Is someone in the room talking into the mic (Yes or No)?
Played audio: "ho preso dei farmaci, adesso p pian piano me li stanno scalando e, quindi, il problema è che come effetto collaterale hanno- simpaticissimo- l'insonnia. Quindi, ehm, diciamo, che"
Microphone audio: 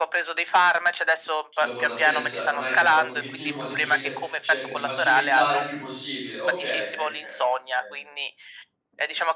Yes